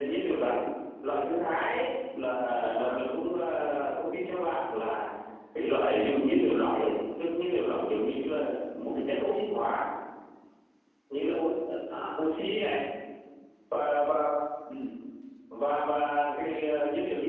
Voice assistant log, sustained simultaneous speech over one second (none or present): none